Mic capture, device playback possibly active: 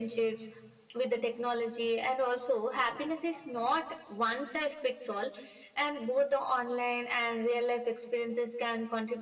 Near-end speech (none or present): none